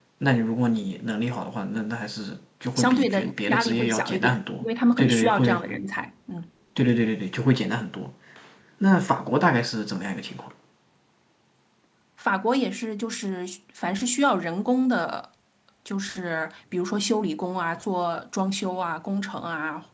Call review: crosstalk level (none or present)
present